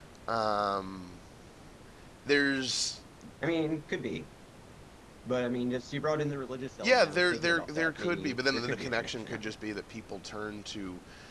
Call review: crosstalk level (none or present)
present